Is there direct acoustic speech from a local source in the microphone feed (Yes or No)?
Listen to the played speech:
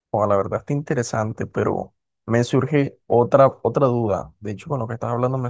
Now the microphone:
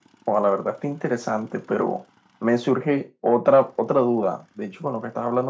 No